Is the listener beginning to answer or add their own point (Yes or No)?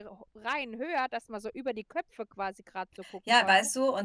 Yes